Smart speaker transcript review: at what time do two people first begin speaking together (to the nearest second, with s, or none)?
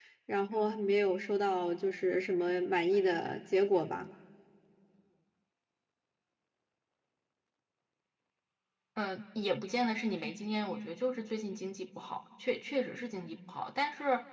none